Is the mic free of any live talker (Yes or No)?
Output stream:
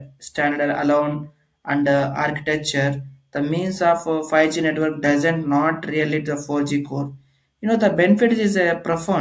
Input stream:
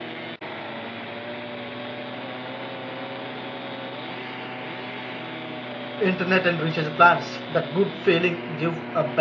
No